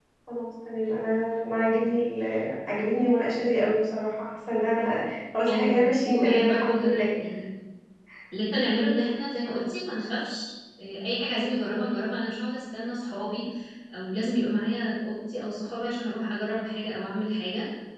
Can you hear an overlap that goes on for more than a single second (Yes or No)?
Yes